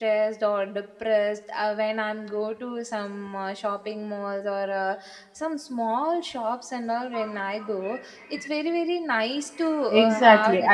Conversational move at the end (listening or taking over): taking over